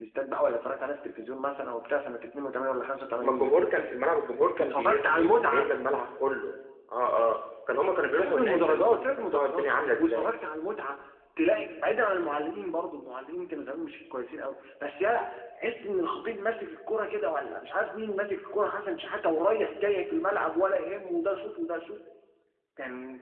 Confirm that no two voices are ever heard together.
No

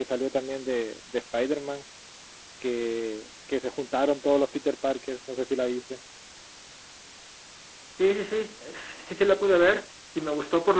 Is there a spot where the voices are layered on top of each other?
No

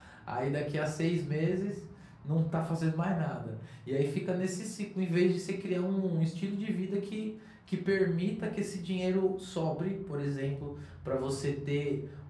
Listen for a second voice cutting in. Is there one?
No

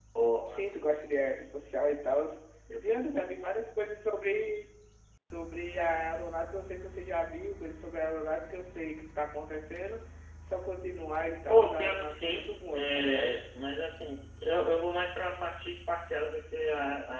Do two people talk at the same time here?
Yes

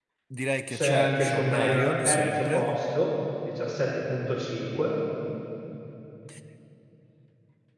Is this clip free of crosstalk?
No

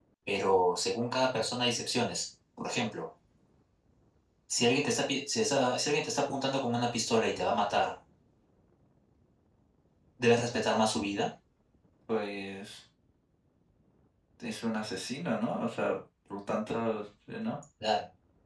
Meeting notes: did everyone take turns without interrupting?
Yes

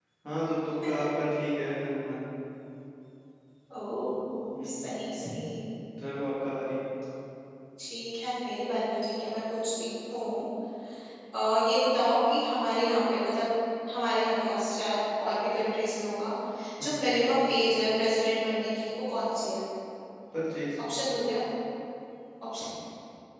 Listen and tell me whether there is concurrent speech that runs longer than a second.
No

